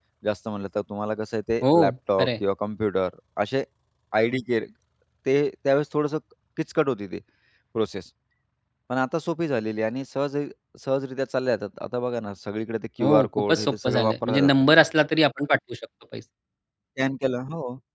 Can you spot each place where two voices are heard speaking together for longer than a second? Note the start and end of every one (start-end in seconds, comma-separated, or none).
13.0-14.5